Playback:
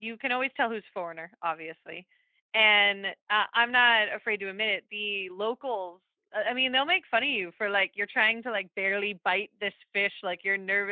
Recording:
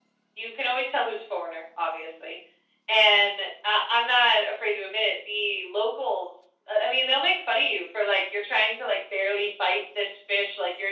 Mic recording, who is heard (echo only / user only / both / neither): echo only